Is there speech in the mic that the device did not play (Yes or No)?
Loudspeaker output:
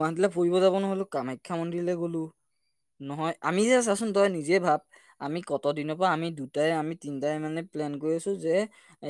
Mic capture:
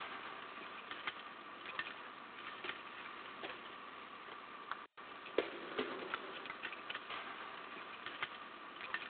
No